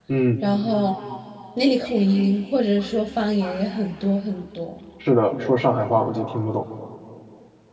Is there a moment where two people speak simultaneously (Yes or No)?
No